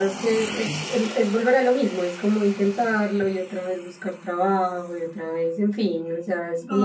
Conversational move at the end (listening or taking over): taking over